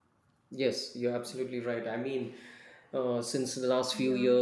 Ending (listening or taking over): listening